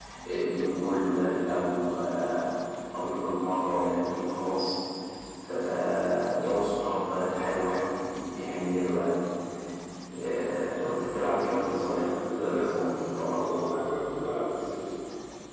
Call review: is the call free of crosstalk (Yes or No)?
No